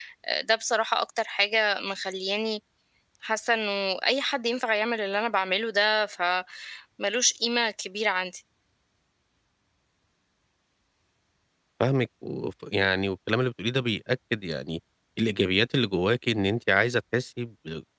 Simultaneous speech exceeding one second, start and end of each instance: none

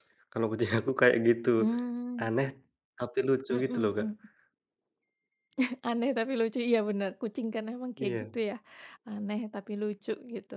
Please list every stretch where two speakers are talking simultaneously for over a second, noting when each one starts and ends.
none

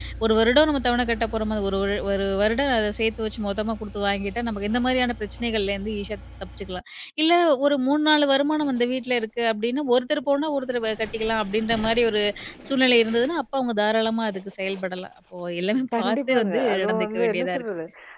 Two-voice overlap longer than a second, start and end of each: 16.0-17.6

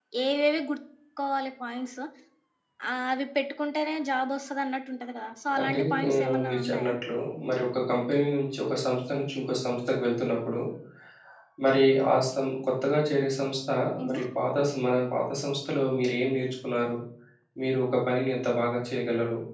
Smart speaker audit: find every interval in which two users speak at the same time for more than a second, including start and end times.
5.6-6.9

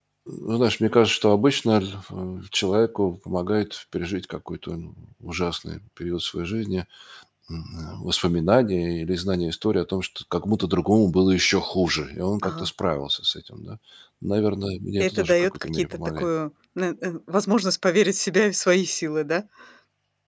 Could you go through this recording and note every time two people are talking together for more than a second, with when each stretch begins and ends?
15.0-16.3

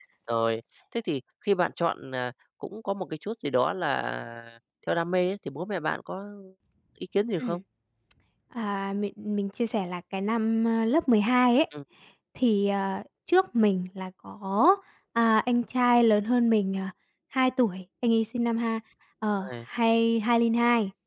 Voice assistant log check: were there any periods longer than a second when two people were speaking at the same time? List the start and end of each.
none

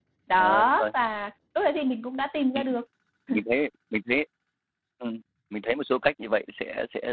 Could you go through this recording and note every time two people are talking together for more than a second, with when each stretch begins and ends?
none

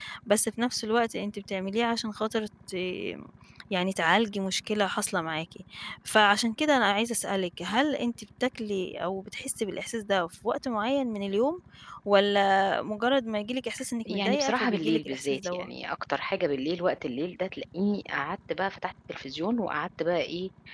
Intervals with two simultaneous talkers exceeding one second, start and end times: 14.1-15.7

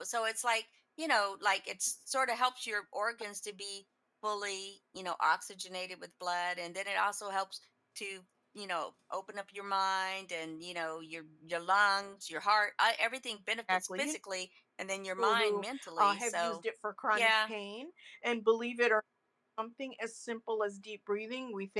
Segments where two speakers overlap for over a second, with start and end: 15.2-16.6

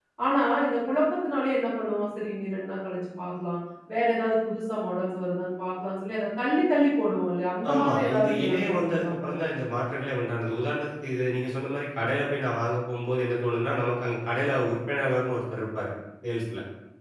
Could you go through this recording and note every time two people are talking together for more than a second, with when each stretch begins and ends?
7.7-9.3

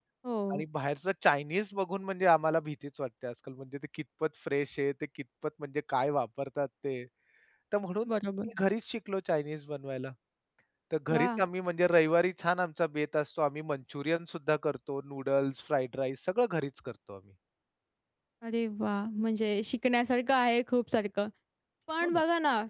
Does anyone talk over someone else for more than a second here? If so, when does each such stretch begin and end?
none

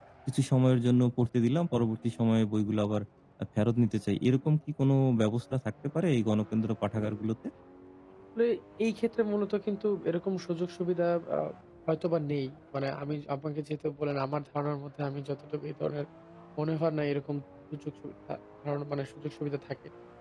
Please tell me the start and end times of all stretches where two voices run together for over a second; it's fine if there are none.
none

